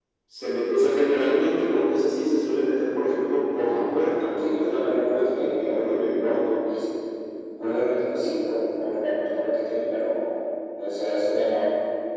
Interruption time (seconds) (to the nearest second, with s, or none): 4 s